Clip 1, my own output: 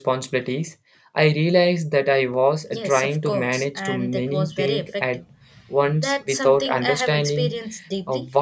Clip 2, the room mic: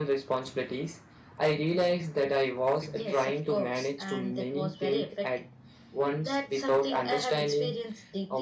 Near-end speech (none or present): present